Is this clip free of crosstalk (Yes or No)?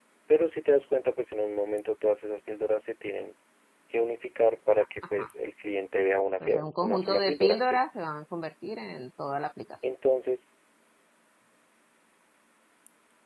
No